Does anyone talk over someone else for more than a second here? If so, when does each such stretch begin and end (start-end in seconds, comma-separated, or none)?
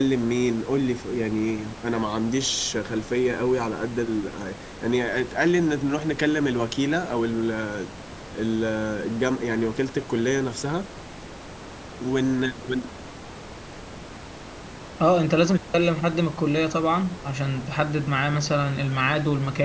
none